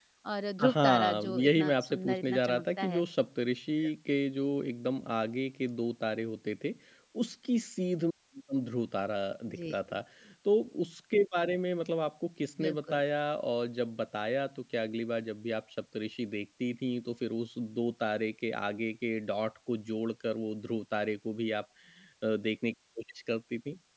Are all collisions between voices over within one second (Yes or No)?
No